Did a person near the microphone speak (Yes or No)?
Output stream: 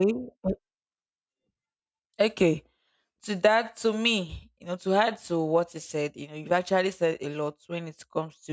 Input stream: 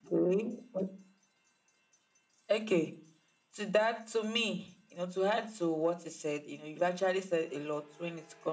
No